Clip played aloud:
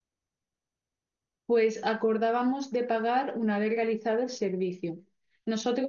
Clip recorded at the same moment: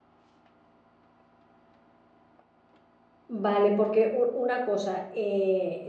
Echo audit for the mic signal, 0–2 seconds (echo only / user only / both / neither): neither